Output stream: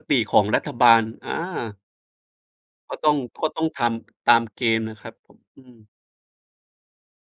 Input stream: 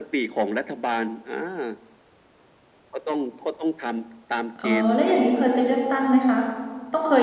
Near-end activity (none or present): present